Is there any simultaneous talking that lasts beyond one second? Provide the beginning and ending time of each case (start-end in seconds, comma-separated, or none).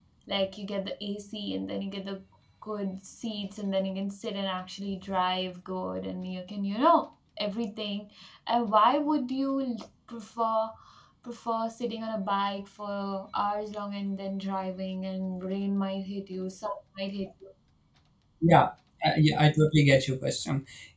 none